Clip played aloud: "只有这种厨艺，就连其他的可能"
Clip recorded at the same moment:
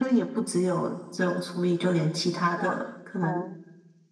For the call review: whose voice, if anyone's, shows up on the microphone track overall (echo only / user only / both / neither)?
both